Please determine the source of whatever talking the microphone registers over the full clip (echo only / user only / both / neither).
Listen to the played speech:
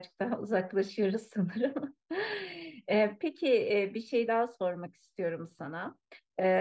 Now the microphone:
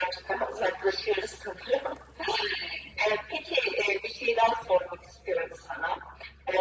echo only